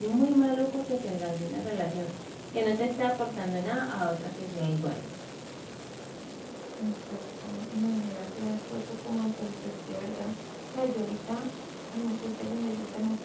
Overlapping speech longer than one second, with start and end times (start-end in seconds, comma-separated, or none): none